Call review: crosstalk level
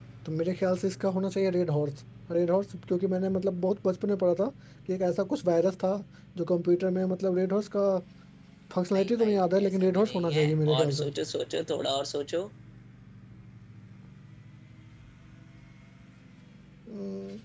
present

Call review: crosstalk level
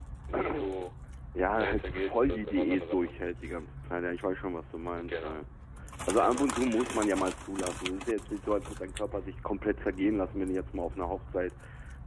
present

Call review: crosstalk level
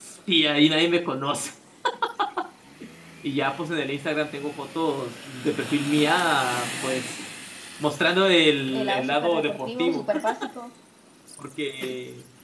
present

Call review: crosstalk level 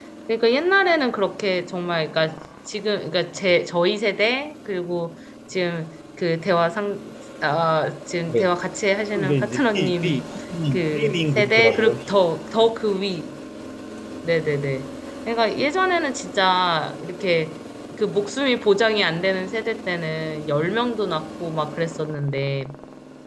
present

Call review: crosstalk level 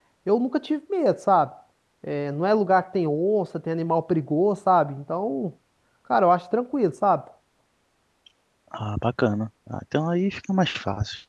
none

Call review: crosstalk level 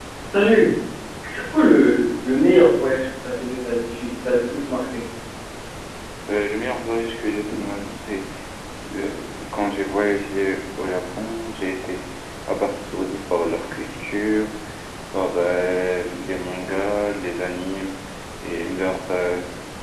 none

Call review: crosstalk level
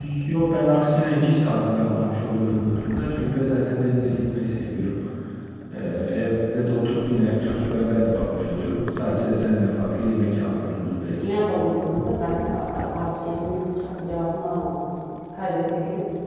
none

